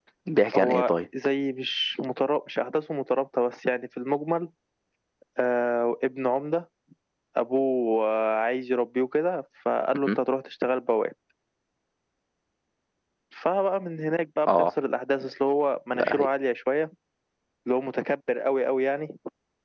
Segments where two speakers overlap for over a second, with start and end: none

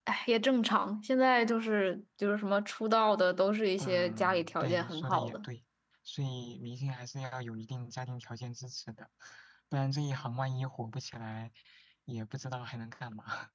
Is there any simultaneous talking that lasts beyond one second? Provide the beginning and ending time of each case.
3.8-5.4

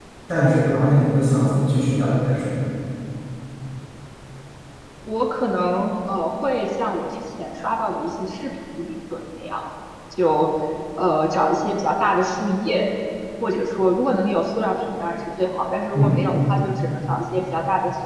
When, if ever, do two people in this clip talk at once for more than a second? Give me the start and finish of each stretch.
none

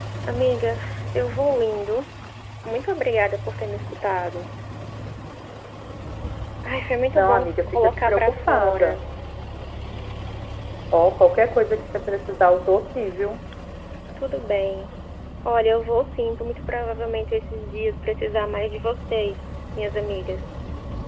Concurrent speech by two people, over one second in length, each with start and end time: 7.2-8.9

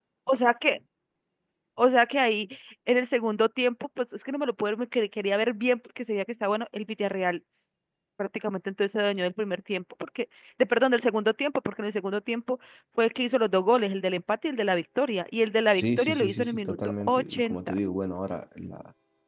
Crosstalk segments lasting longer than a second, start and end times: 15.8-17.8

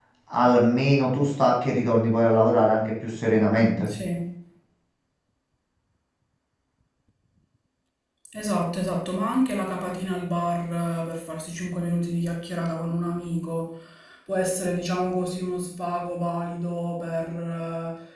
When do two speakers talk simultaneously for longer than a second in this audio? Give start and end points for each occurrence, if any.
none

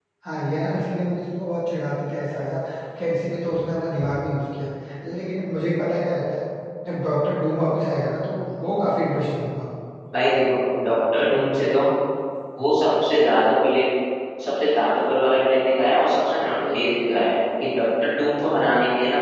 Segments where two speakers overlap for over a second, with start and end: none

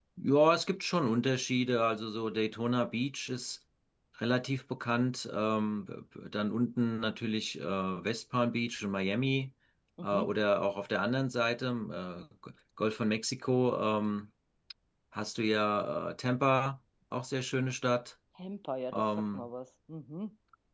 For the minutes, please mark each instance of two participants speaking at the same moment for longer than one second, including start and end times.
none

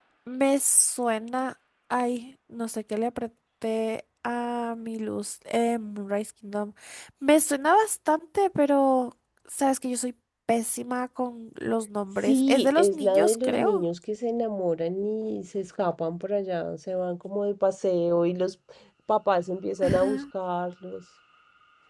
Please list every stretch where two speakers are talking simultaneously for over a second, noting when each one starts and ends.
12.2-13.8

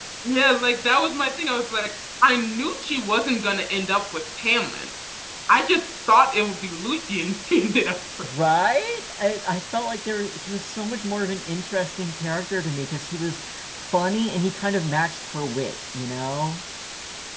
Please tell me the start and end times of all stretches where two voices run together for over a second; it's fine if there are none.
none

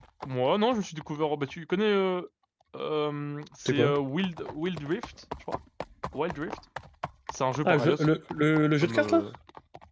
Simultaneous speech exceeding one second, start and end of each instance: none

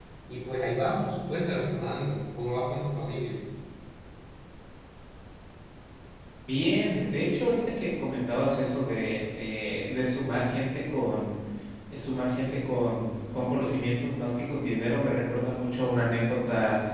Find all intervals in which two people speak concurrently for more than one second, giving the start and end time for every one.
none

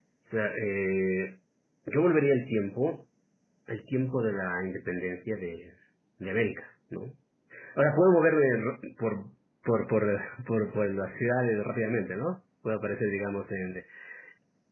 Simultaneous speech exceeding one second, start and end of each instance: none

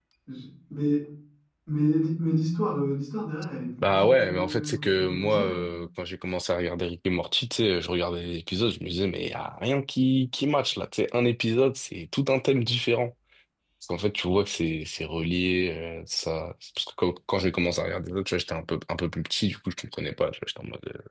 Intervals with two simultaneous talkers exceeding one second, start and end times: 3.8-5.6

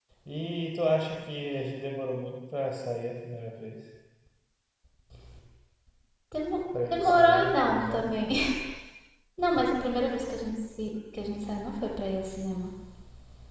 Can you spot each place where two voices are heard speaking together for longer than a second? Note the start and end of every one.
6.8-8.0

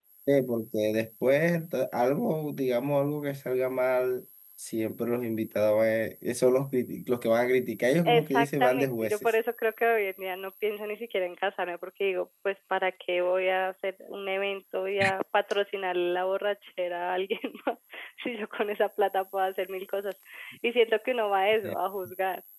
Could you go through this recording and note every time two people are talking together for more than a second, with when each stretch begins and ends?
8.1-9.3

